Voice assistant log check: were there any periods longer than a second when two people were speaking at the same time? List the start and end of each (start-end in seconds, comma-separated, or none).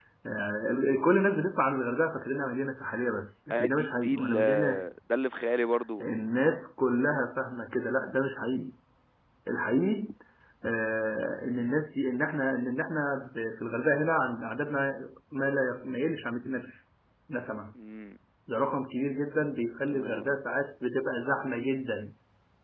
3.5-4.8